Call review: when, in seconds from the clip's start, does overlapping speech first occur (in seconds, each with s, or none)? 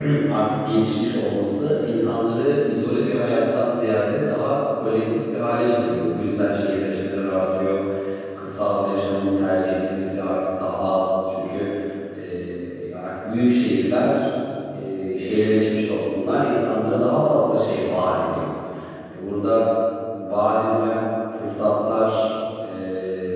none